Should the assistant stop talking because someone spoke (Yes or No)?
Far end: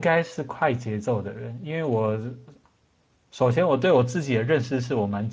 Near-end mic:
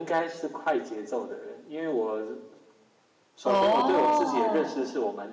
Yes